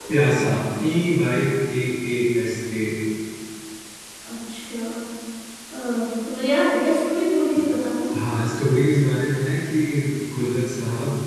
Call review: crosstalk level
none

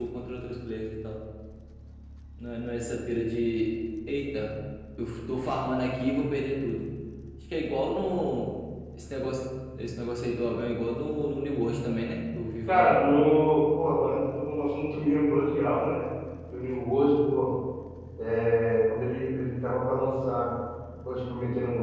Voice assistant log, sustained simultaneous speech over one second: none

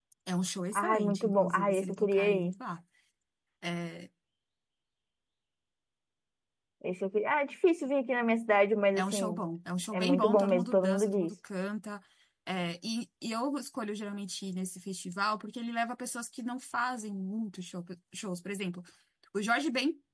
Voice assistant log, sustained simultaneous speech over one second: present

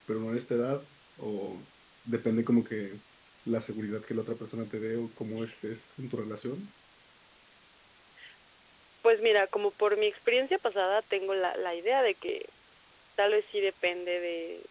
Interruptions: none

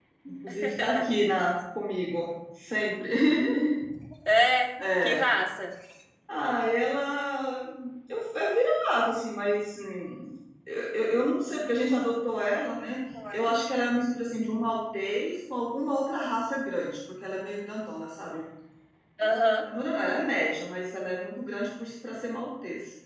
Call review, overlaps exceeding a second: none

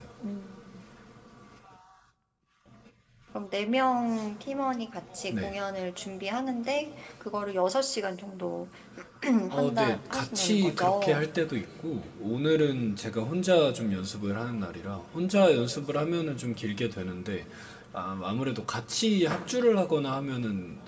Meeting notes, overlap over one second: present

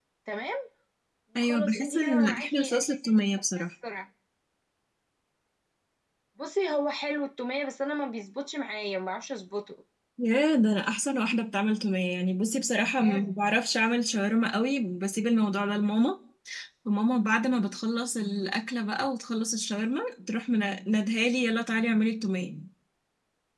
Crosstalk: present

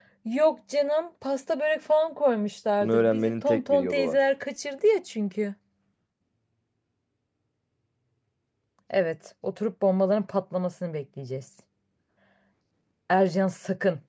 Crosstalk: present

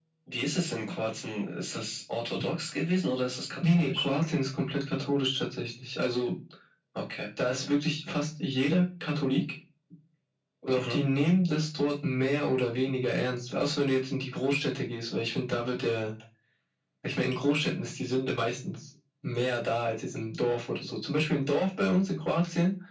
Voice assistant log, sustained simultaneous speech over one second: none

